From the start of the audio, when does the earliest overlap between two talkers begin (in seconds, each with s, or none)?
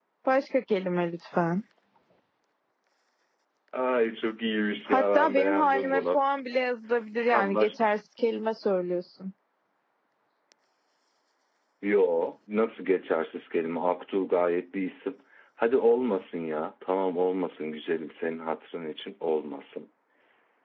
4.9 s